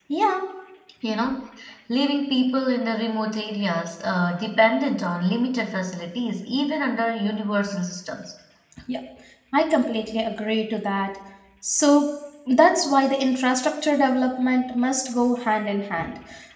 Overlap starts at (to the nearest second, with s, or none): none